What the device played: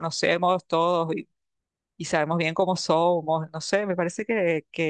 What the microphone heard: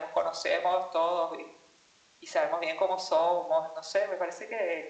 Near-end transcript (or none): none